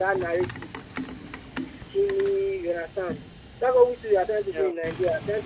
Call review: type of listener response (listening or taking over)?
listening